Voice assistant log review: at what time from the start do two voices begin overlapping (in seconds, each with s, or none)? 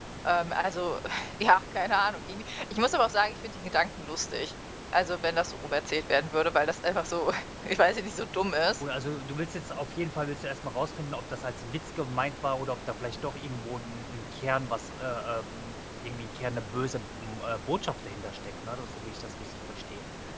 none